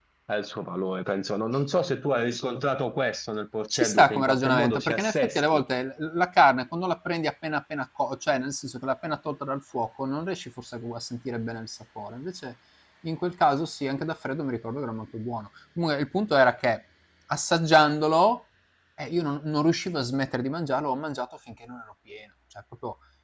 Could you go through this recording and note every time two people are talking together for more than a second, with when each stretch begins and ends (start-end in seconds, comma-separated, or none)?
3.7-5.6